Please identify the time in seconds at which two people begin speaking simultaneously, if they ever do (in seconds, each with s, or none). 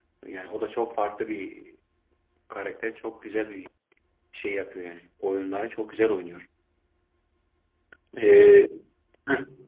none